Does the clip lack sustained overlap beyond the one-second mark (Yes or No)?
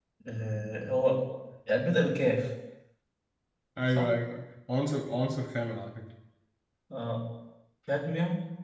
Yes